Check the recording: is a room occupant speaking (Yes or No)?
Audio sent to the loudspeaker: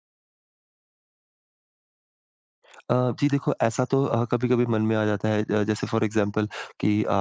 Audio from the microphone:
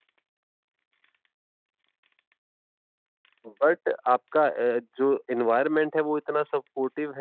Yes